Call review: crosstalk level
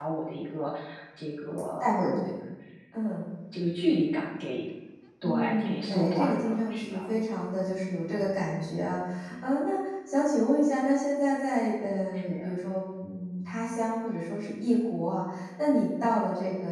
present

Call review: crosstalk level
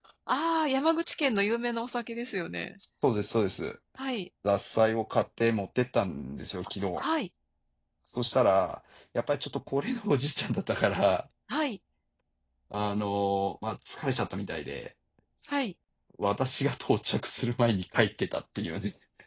none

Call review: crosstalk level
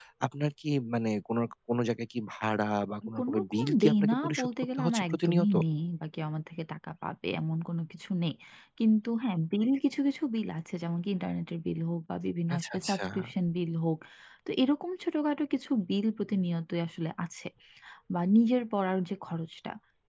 present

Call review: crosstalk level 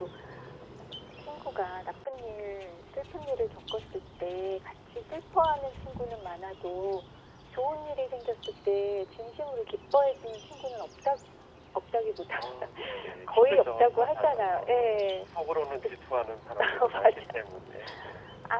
present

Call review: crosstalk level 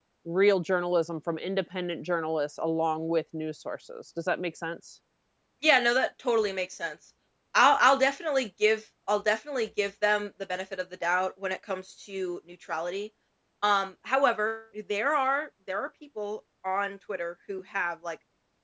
none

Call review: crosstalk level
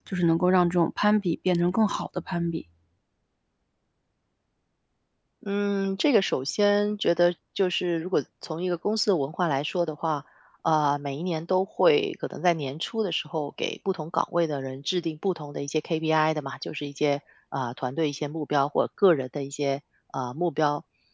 none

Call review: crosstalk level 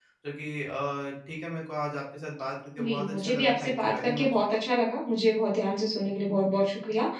present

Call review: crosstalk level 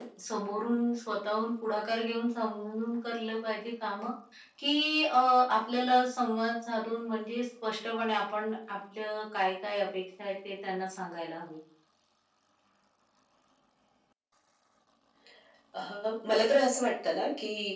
none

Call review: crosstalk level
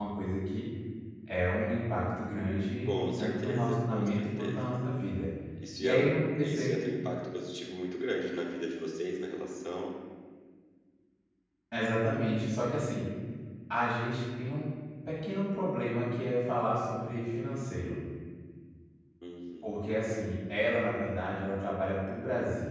present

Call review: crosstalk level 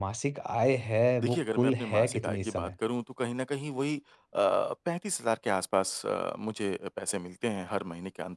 present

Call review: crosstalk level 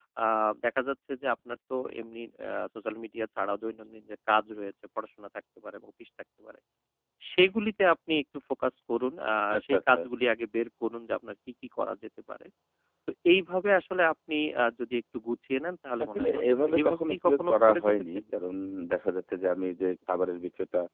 present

